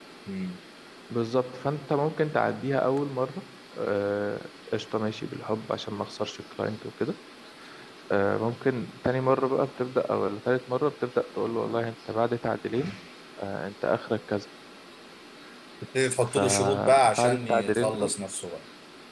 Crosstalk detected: Yes, from 16.2 s

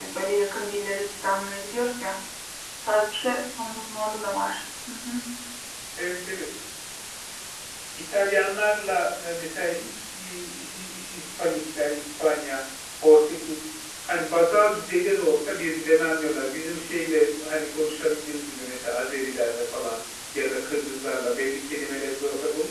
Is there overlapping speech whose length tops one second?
No

